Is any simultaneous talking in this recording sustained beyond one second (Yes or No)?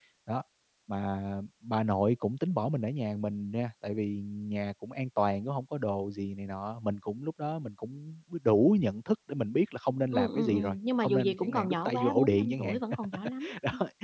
Yes